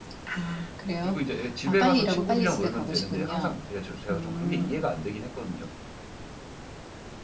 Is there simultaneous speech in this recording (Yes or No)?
Yes